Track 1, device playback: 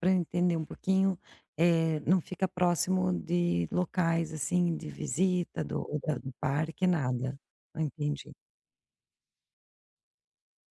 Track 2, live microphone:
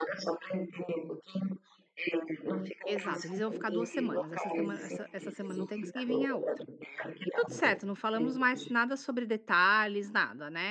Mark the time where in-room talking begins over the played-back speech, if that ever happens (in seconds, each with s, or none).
2.9 s